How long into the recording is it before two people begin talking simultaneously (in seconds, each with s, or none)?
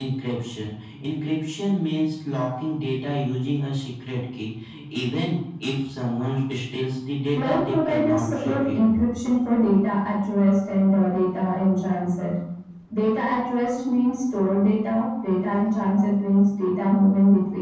7.4 s